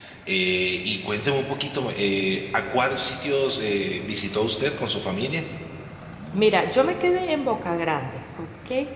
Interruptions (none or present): none